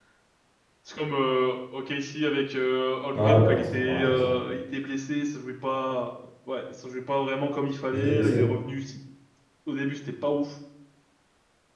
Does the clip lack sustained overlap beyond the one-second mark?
No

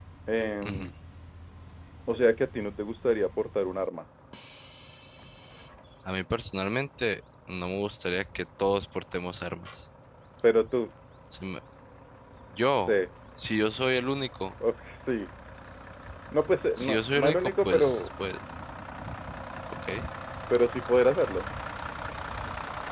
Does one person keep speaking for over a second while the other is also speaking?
Yes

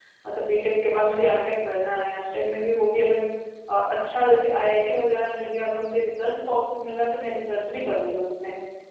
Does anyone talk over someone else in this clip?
No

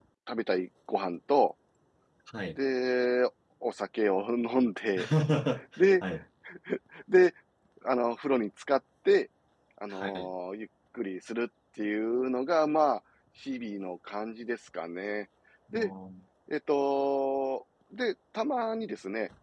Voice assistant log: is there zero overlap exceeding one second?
Yes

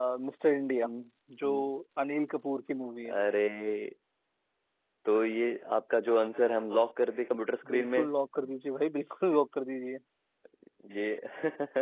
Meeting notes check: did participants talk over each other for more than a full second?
No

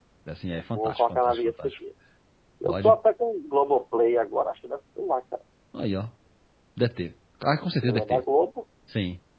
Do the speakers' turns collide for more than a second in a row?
Yes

